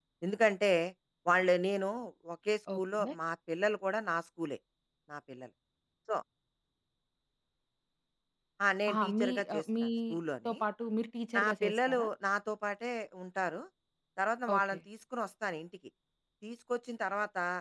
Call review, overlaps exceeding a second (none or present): present